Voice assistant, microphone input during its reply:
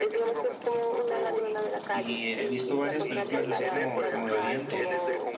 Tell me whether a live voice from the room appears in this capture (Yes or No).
Yes